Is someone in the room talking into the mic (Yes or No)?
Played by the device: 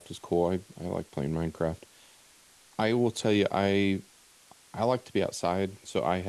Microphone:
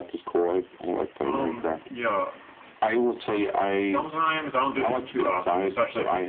Yes